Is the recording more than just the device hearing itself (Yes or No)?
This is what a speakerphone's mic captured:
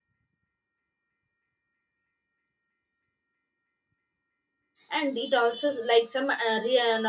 Yes